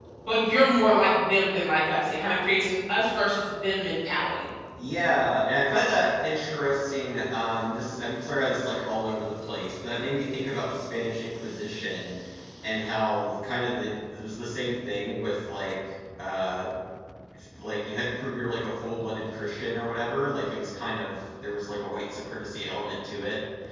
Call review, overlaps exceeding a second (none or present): none